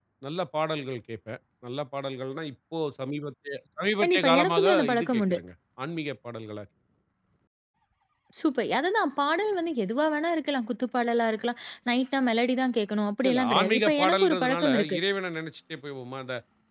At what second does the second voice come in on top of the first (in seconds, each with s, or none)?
4.0 s